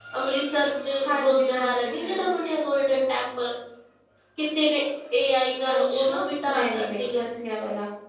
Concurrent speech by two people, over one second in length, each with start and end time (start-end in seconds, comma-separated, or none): 1.1-2.4, 5.7-7.2